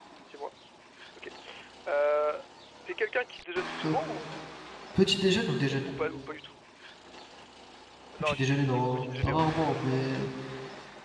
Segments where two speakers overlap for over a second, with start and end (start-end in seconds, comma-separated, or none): 8.2-9.5